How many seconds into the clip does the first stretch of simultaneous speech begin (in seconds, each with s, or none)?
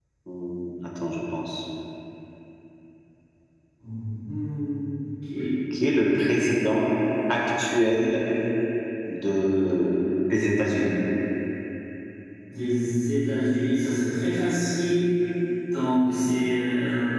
none